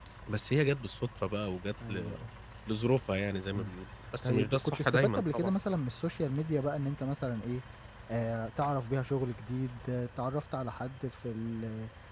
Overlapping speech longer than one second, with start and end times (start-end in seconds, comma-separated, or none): 4.2-5.5